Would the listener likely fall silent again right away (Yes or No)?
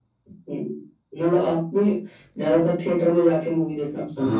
No